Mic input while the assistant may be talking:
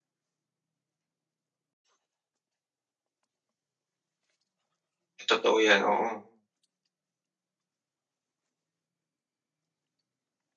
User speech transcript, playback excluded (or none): totoo 'yan, oo.